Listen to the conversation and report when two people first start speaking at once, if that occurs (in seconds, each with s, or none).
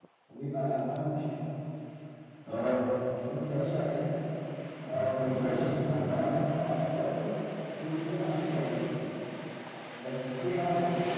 4.9 s